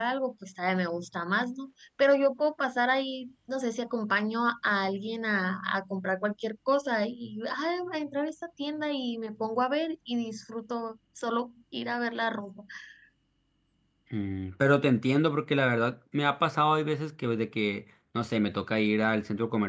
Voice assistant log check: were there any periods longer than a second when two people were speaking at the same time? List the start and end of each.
none

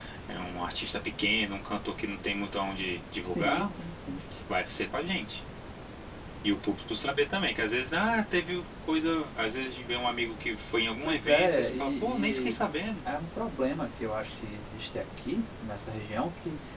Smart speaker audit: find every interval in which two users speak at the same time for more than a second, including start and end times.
11.0-12.6

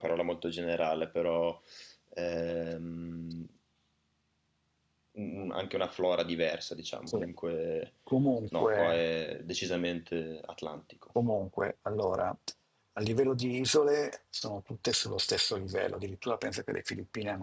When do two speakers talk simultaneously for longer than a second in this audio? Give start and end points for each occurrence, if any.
none

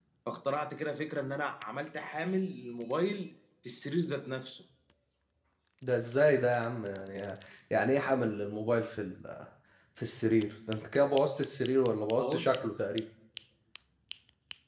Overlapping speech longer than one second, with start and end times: none

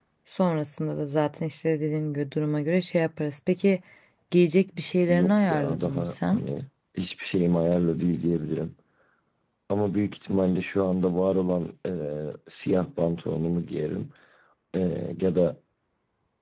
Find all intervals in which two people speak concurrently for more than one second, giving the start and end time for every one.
5.1-6.4

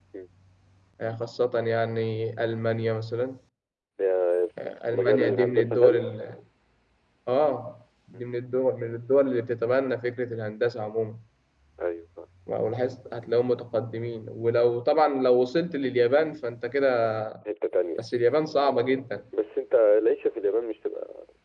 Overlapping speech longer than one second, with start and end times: 4.6-6.1

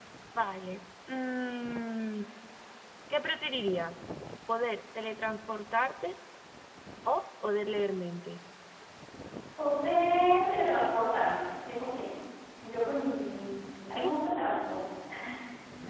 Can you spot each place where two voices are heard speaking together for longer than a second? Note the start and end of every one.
none

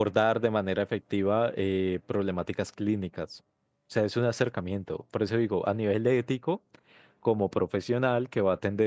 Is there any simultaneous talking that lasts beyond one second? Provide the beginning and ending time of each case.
none

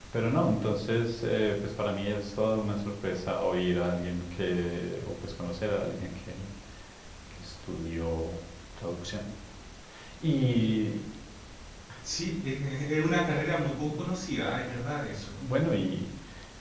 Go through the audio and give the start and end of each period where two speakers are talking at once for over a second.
none

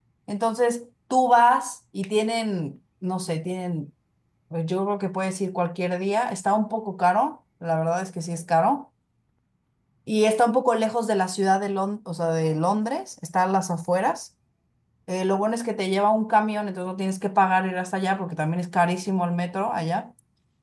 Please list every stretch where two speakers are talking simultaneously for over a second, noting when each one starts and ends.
none

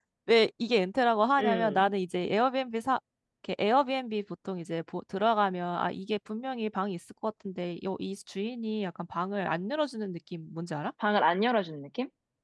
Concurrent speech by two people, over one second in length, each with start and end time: none

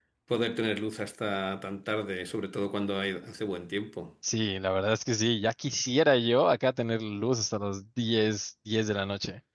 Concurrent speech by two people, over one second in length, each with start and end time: none

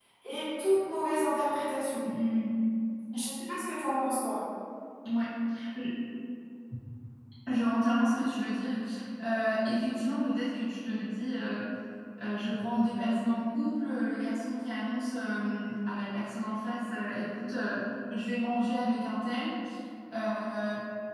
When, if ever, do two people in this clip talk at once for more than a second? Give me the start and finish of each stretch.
none

